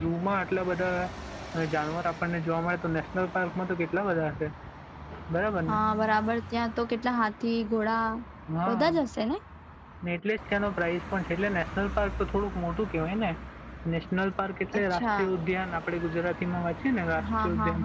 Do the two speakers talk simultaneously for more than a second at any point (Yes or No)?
No